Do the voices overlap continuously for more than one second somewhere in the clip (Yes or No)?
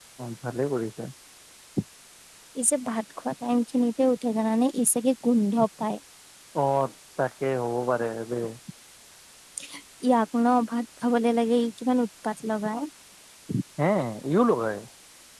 No